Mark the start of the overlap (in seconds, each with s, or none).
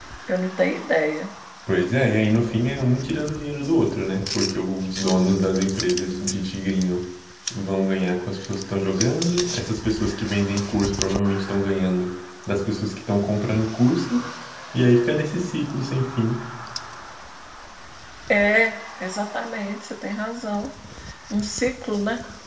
none